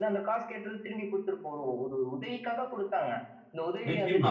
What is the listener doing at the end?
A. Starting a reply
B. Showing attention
A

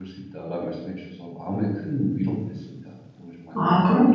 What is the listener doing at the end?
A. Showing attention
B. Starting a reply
B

